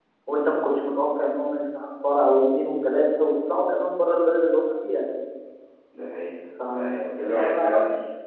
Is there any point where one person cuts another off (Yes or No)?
Yes